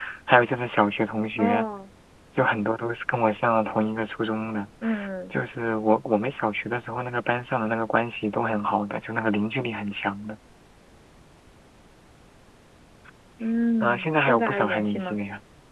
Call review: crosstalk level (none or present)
present